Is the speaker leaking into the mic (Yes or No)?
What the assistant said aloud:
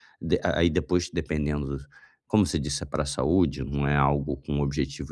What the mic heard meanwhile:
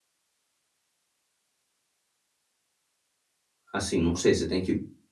No